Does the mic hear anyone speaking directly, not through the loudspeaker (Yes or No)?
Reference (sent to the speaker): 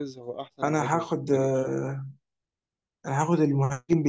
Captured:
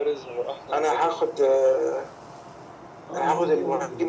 Yes